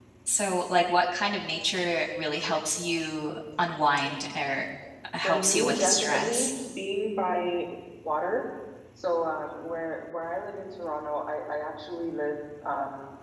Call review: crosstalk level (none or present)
present